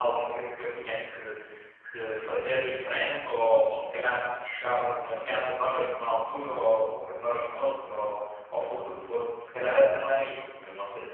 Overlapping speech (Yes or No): No